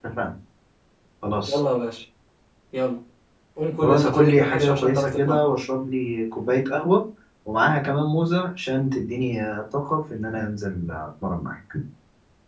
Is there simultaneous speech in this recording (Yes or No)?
Yes